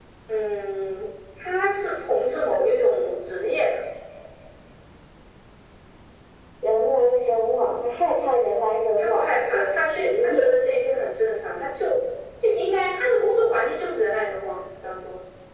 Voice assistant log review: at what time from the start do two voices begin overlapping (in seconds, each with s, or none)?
9.0 s